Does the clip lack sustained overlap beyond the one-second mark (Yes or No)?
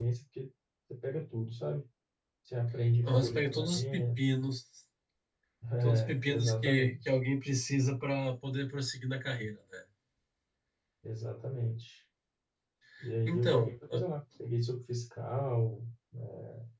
No